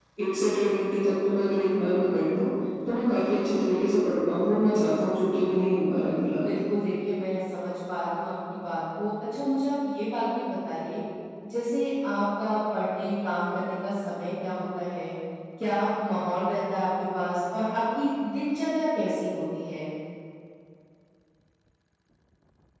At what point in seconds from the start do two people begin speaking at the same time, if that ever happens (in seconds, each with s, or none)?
none